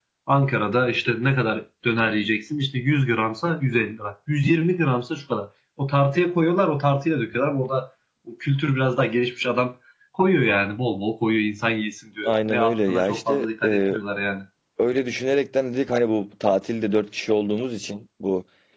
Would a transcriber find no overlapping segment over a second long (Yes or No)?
No